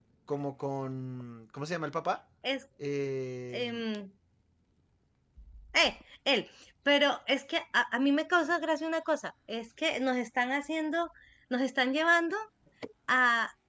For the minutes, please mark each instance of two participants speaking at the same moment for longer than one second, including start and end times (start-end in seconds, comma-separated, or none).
none